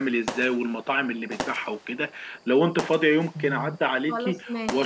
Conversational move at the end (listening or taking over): listening